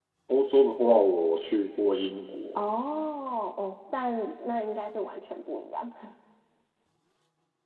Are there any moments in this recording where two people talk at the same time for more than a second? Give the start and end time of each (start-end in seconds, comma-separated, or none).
none